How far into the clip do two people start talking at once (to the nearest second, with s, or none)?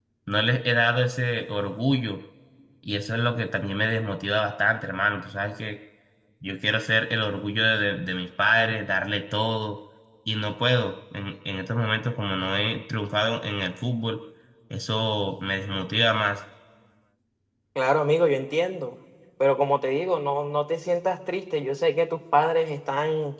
none